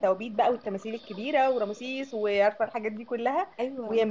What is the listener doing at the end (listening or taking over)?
listening